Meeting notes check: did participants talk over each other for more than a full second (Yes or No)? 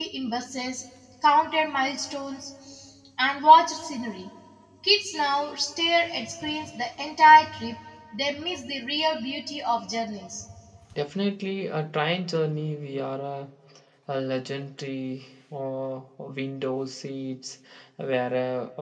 No